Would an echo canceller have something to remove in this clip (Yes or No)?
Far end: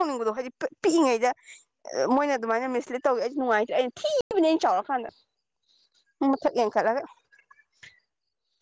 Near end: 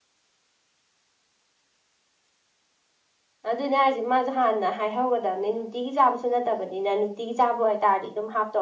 No